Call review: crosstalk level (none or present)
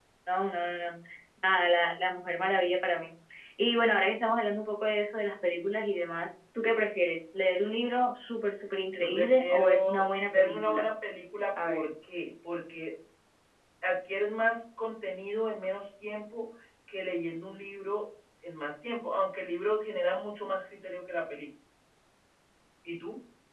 present